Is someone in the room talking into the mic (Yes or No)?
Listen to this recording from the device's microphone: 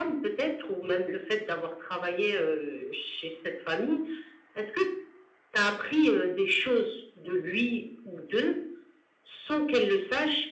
No